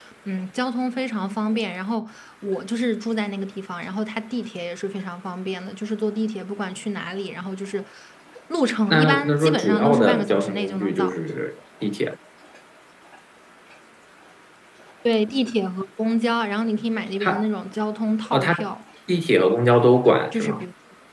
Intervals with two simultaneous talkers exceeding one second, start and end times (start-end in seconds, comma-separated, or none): 8.9-11.1